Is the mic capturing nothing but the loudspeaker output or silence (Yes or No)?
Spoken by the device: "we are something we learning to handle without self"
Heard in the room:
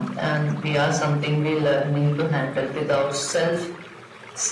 Yes